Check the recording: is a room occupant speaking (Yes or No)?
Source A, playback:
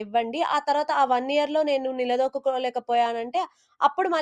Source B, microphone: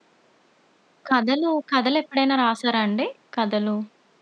Yes